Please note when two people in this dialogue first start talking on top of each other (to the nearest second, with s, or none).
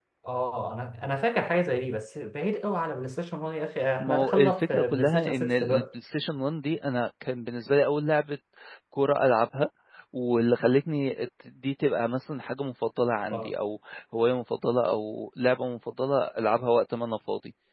4 s